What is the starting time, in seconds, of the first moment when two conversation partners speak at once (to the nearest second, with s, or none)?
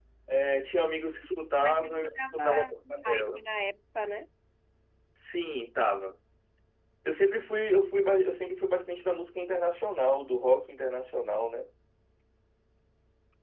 2 s